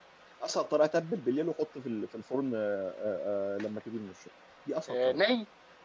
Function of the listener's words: taking over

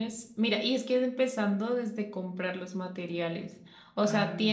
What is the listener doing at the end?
listening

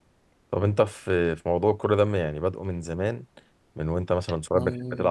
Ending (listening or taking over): listening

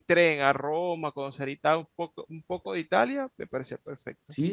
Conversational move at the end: taking over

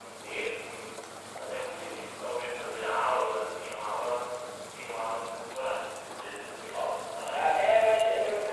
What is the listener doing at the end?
taking over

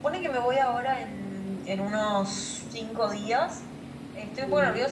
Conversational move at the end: listening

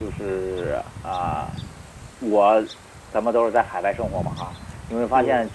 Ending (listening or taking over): listening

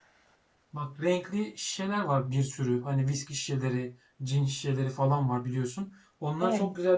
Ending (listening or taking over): listening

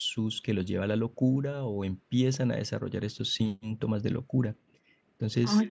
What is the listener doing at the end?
listening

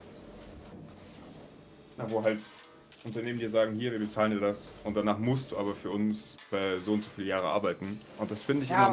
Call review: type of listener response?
taking over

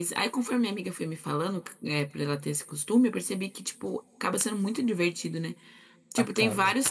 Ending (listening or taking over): listening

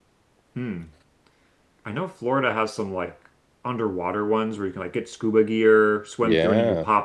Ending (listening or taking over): listening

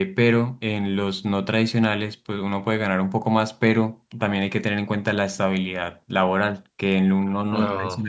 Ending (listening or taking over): listening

